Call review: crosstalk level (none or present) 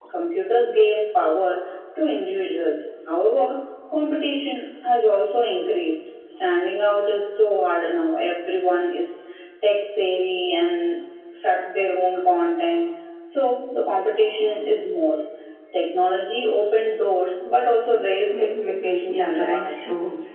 present